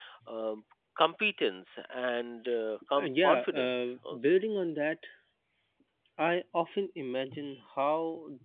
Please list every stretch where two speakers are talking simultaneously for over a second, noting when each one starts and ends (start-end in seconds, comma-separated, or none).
3.0-4.4